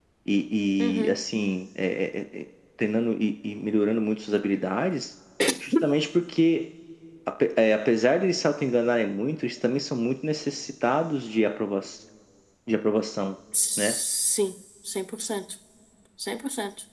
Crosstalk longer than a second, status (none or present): none